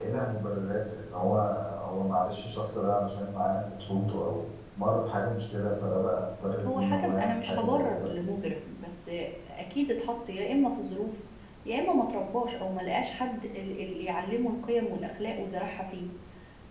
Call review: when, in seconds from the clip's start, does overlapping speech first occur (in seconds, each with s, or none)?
6.7 s